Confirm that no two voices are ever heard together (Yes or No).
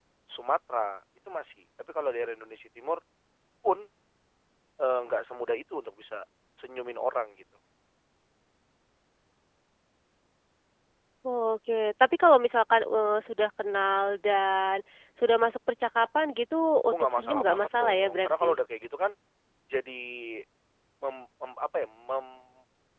No